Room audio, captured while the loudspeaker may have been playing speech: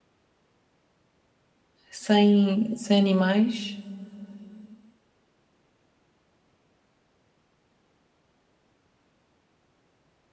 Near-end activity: present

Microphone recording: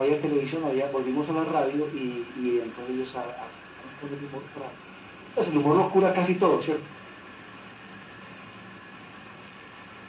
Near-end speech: none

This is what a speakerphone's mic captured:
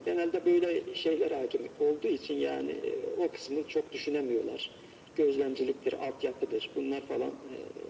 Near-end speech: none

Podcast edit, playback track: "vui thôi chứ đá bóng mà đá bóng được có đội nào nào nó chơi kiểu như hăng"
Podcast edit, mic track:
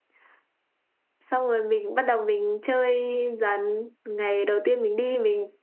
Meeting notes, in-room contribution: present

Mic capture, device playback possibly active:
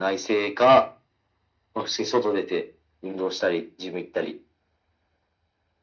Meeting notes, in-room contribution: none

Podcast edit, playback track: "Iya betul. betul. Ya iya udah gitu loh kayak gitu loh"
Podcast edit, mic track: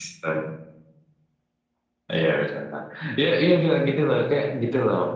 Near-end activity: none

